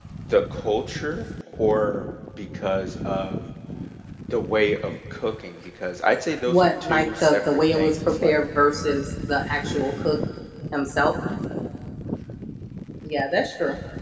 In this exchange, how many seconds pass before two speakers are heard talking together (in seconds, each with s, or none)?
6.5 s